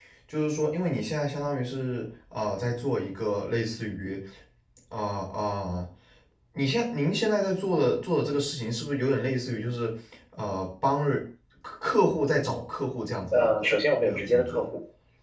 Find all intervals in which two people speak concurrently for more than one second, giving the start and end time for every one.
13.3-14.6

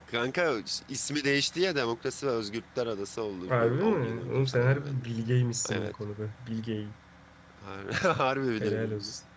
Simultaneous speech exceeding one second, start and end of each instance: 3.5-5.0

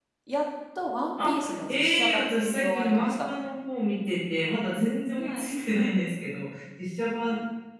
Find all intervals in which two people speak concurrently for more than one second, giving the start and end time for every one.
1.2-3.3

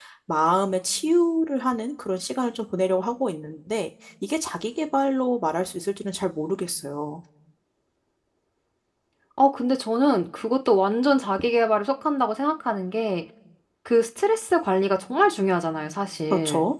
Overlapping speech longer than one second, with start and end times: none

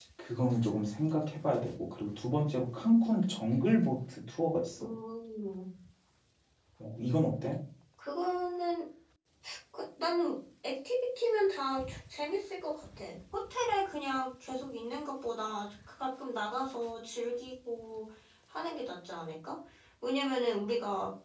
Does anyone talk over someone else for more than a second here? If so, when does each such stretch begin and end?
none

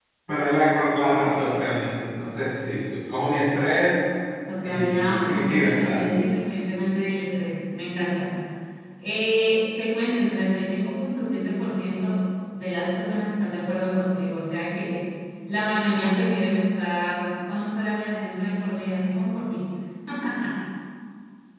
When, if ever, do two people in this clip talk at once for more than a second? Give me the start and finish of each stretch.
4.6-6.1

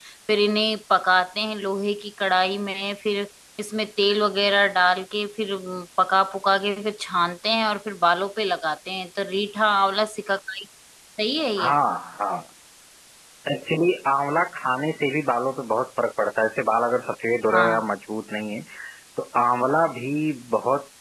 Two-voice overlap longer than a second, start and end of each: none

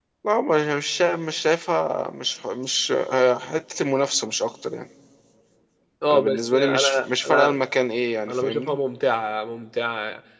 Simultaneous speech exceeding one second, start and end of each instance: 6.1-7.6

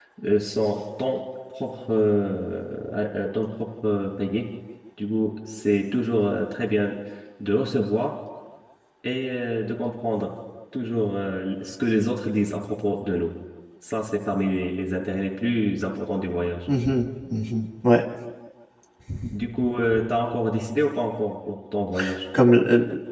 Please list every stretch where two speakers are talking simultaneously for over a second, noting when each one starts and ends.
none

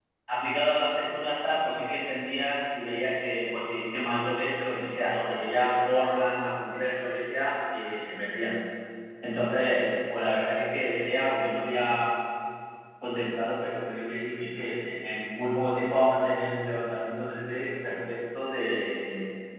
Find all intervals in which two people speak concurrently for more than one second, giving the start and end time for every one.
none

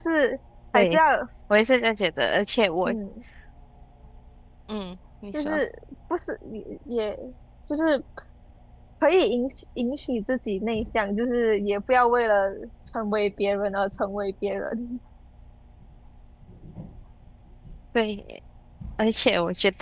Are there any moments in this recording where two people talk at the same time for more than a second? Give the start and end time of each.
none

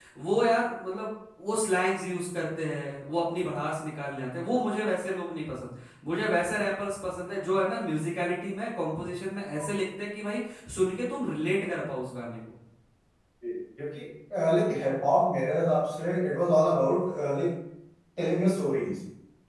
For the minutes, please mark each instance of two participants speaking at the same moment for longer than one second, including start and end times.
none

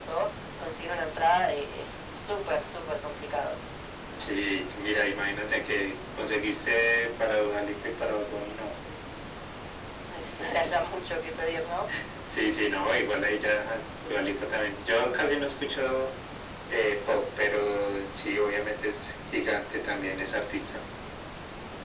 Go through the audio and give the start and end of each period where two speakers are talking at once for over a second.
none

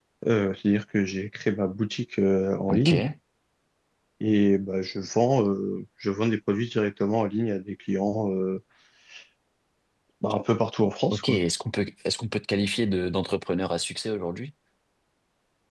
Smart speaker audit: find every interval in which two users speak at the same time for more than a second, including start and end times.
none

